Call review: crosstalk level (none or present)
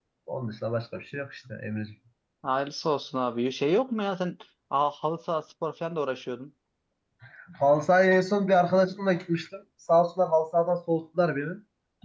none